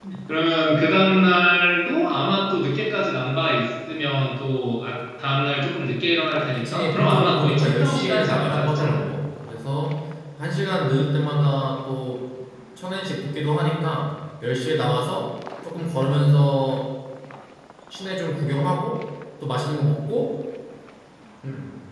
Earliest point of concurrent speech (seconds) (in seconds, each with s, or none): 6.5 s